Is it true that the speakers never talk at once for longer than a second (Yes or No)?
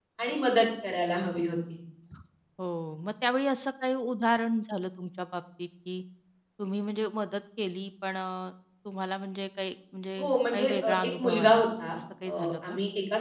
No